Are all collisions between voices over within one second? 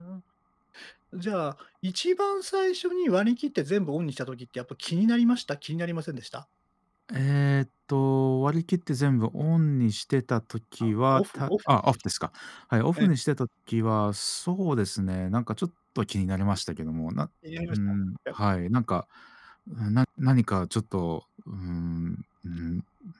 No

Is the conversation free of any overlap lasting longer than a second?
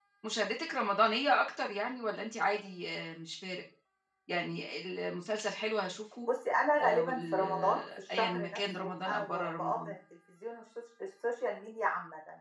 No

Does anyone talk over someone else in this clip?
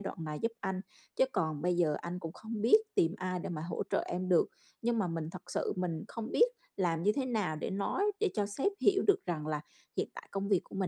No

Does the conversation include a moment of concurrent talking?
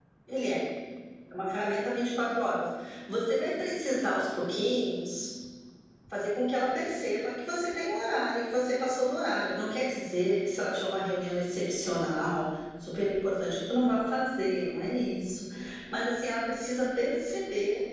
No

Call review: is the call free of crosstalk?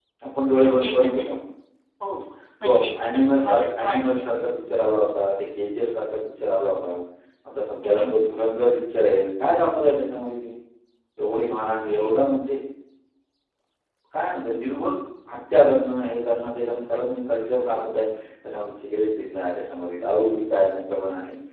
No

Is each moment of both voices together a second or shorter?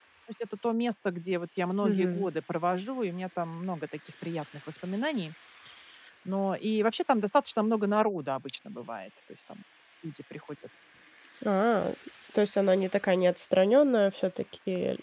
Yes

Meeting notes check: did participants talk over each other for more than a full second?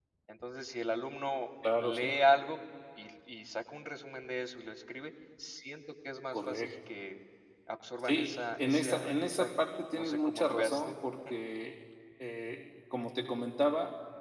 Yes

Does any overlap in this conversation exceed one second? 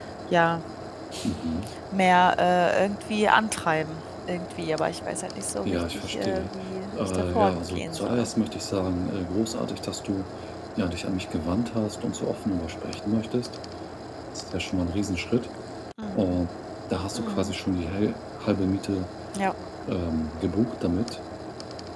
Yes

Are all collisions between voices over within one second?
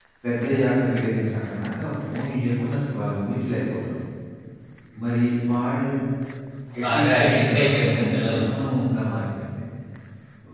No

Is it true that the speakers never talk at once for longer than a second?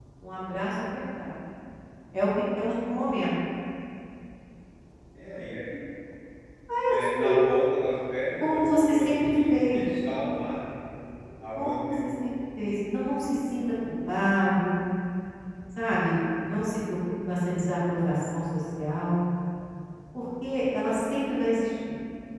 No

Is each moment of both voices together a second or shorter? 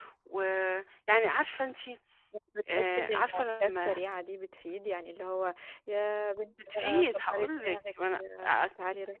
No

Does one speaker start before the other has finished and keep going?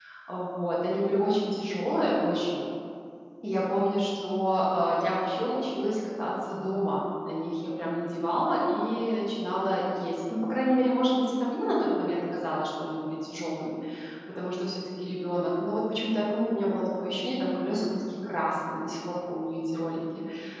No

